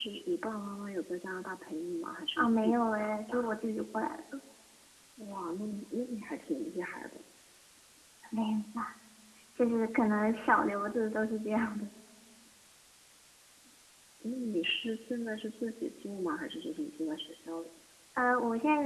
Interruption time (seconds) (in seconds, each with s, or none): 2.4 s